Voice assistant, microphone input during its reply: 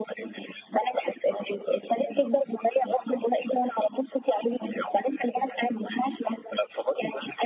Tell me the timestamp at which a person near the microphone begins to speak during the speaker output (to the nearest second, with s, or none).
none